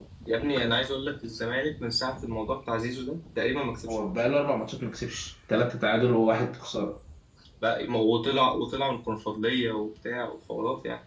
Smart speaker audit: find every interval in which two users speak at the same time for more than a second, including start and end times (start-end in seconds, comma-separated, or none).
none